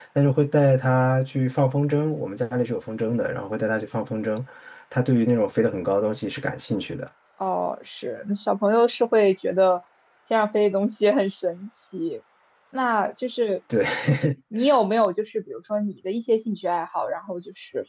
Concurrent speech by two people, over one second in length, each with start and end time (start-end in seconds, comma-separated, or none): none